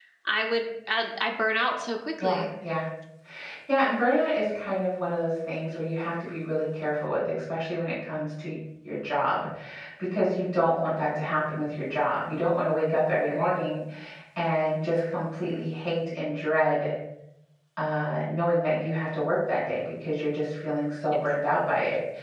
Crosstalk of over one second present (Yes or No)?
No